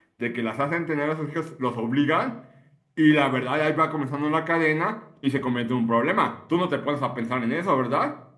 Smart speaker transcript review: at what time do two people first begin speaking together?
none

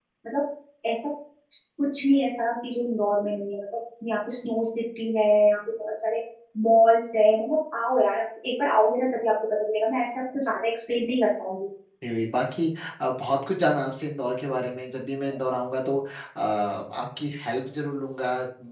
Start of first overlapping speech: none

